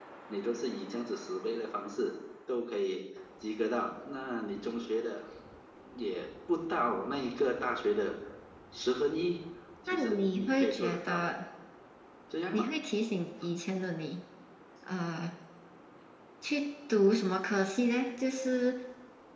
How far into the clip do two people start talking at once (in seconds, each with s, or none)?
9.9 s